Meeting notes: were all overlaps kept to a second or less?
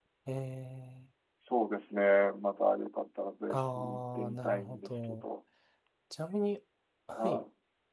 No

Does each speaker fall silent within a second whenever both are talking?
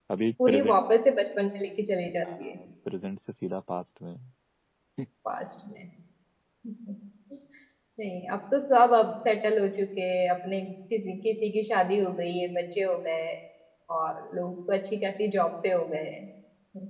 Yes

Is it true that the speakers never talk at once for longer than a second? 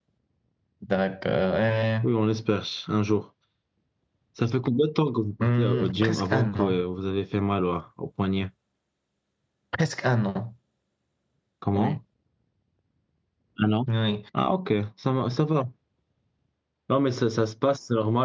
No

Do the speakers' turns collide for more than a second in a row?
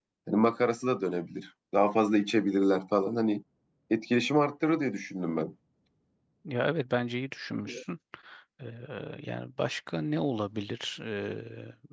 No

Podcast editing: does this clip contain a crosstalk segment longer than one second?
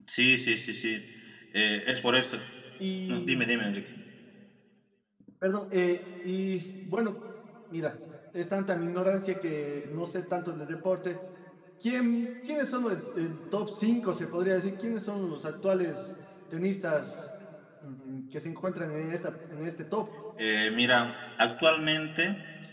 No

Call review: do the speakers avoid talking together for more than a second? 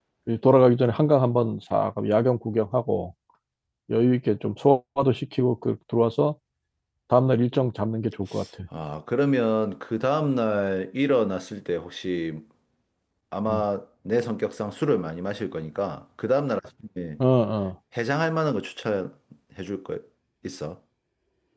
Yes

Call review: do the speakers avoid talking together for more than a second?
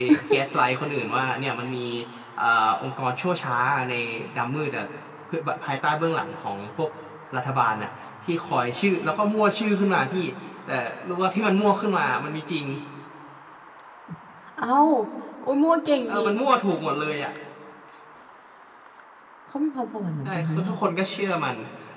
Yes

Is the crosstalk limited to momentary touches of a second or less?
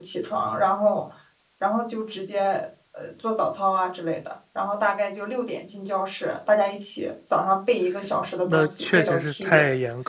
No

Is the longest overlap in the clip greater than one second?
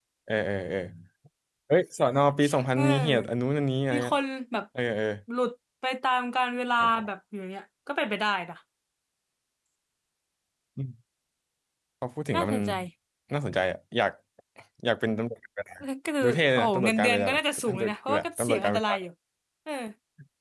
Yes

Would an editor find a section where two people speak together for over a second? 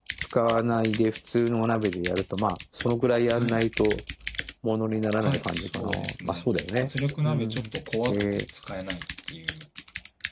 Yes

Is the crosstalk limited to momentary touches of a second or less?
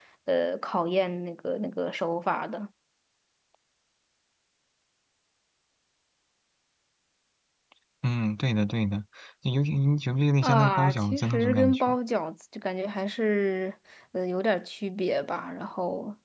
No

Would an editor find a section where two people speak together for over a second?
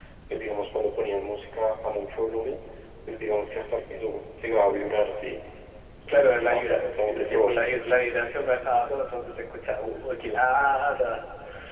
Yes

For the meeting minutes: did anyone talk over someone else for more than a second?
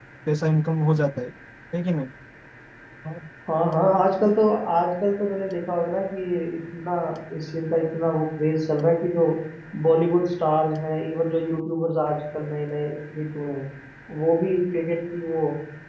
No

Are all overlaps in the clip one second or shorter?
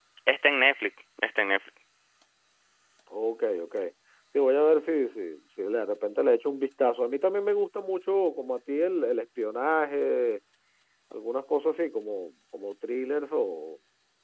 Yes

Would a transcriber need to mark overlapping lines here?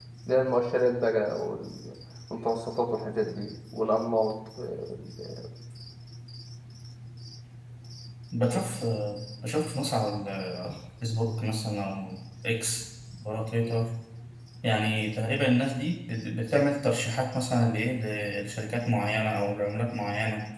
No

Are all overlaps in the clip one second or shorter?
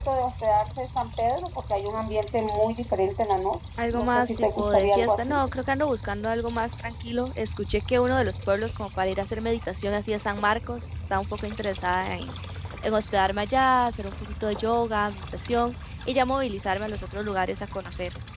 No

